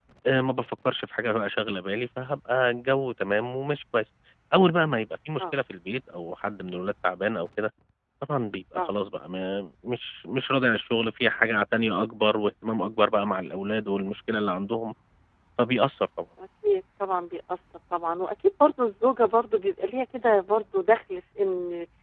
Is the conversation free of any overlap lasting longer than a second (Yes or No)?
Yes